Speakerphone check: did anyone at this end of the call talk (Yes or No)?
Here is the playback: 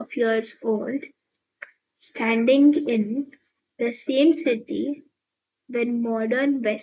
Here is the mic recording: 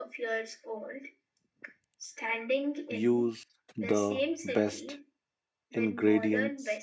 Yes